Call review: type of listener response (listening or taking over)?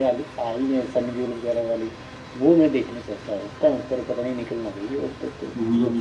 taking over